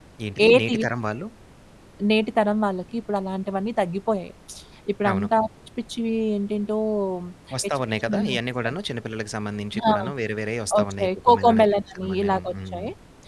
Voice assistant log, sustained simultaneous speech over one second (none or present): present